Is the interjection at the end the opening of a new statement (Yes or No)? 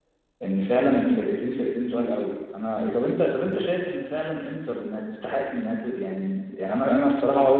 No